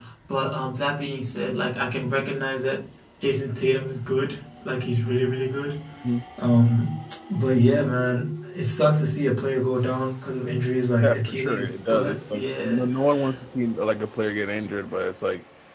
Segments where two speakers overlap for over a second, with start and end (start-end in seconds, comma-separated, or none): 11.0-12.8